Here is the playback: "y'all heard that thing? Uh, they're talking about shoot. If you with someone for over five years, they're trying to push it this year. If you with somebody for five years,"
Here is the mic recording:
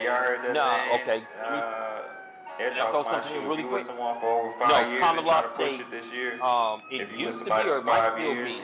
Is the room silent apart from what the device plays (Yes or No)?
No